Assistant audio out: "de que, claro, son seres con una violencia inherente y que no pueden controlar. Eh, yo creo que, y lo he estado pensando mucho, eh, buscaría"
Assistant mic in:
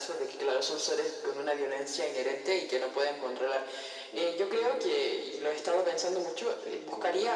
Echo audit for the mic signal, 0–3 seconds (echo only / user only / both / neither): echo only